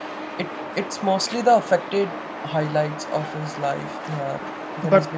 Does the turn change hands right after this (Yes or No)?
Yes